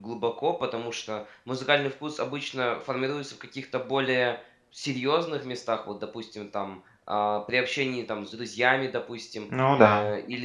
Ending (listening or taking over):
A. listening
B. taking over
A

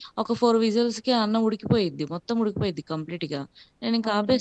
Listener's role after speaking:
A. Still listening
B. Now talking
B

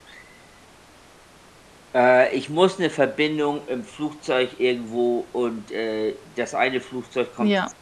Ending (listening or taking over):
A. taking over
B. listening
B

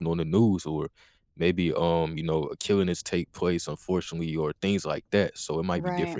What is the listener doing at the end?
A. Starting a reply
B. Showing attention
B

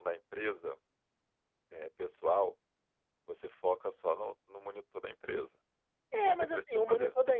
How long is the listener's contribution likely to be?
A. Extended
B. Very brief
A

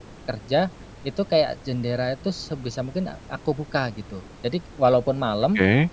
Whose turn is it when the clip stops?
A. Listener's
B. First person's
B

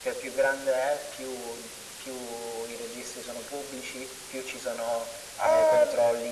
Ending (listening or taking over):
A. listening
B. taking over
A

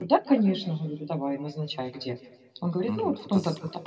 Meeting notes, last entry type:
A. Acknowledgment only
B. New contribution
B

